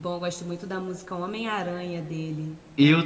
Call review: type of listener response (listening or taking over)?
taking over